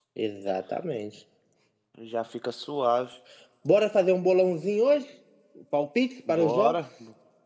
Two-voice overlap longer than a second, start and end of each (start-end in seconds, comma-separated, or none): none